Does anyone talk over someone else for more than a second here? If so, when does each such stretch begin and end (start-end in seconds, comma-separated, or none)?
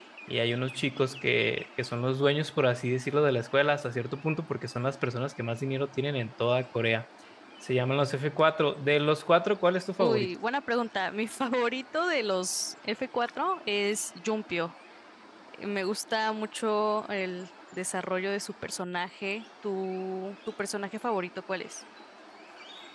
none